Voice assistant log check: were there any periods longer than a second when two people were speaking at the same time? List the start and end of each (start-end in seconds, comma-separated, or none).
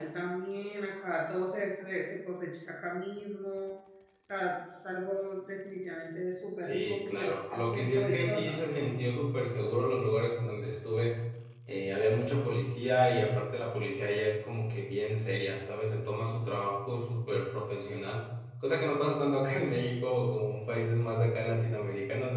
6.5-8.7